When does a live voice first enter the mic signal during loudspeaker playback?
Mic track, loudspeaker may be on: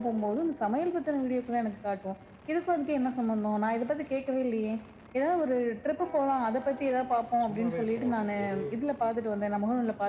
7.4 s

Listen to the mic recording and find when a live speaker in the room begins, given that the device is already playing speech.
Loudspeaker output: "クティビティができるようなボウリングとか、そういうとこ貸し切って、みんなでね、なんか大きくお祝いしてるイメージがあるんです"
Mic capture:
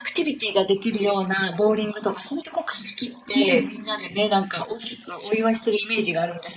3.3 s

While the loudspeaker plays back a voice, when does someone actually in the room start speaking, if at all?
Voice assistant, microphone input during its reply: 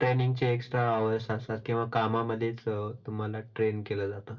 none

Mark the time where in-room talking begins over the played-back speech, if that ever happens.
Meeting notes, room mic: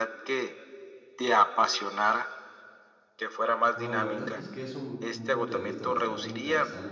3.7 s

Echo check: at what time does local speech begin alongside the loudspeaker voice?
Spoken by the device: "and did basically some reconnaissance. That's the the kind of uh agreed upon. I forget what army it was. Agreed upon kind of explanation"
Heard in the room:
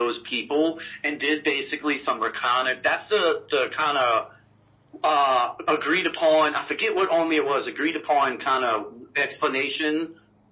none

